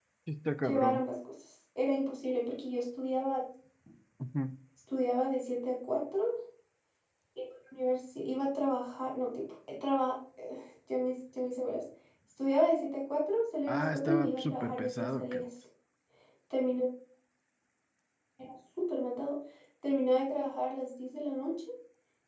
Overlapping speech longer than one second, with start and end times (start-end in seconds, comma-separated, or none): 13.7-15.4